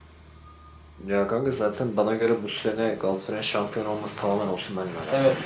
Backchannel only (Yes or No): No